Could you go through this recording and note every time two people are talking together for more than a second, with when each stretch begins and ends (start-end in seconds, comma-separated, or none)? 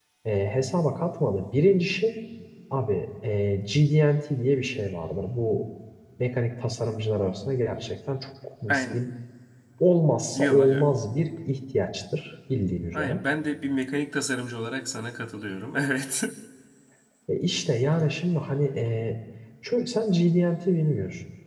none